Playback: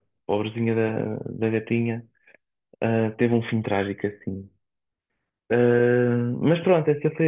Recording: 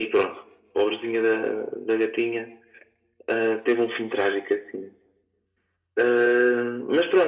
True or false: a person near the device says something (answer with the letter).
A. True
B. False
B